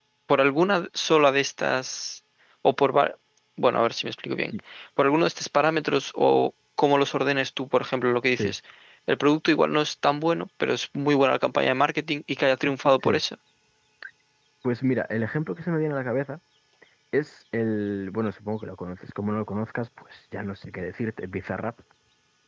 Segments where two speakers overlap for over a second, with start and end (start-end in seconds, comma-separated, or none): none